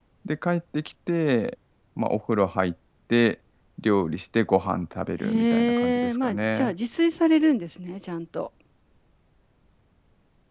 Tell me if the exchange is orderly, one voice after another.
No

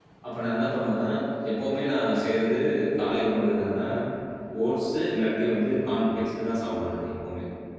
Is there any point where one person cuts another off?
No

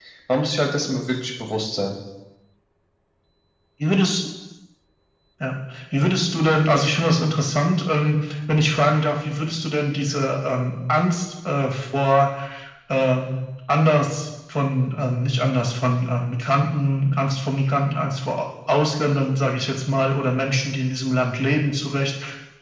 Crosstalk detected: No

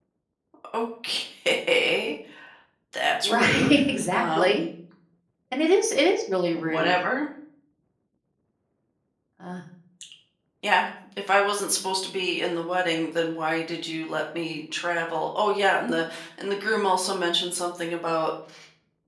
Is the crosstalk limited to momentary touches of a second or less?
No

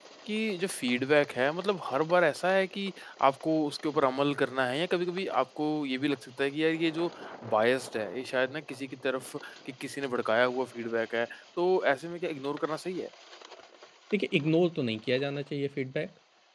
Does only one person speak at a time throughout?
Yes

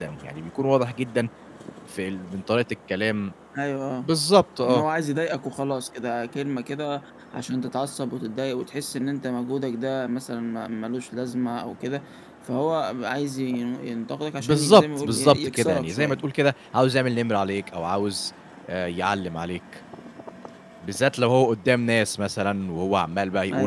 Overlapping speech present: Yes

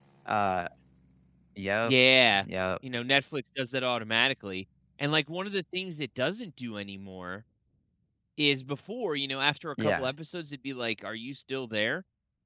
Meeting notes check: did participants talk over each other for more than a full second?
No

